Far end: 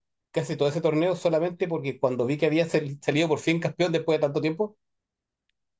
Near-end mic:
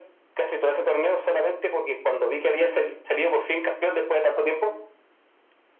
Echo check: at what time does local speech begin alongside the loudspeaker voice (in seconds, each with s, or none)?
none